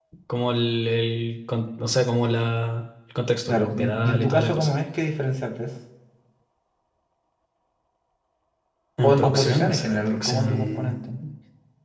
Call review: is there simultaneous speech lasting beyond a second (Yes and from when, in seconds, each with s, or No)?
Yes, from 3.5 s